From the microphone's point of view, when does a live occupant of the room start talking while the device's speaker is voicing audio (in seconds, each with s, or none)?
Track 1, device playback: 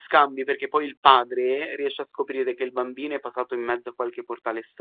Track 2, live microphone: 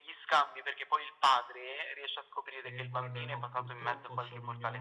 2.6 s